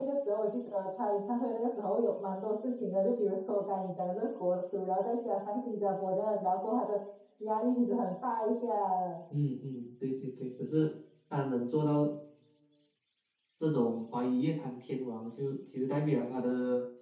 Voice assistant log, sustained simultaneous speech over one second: none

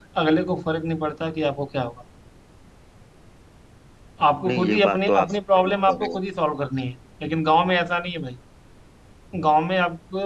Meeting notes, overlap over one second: present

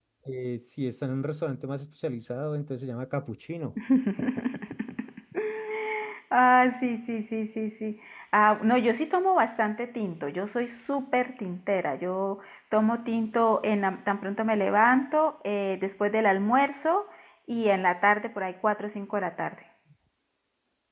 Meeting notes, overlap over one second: none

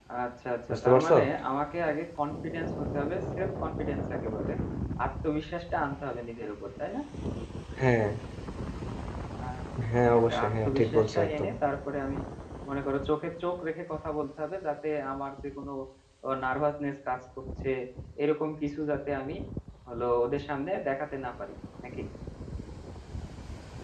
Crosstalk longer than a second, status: present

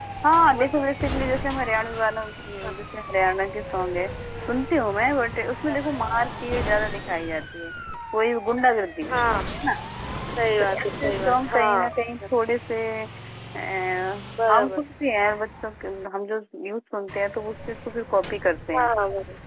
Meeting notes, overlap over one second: present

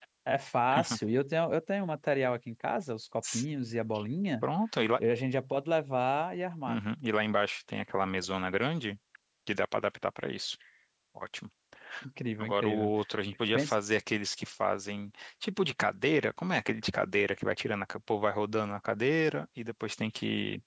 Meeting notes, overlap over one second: none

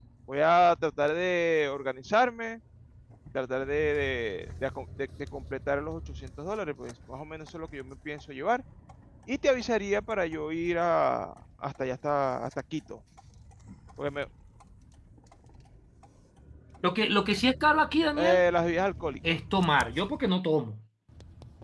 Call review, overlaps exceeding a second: none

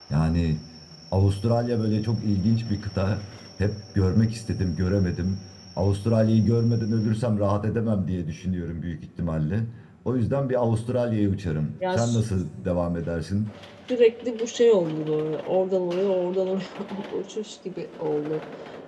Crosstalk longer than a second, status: none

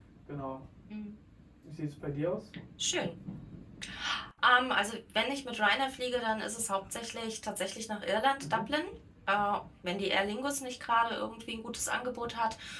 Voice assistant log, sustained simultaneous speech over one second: none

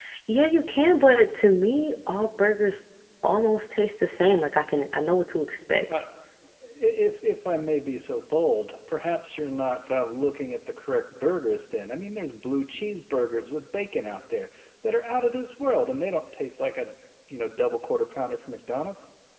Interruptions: none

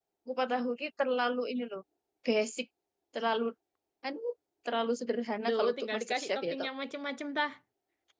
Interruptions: present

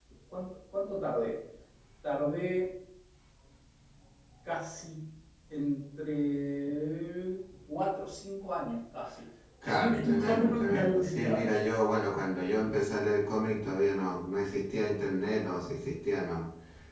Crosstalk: present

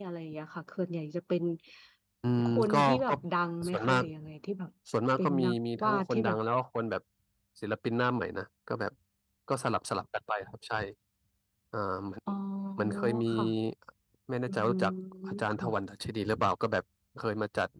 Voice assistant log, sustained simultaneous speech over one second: present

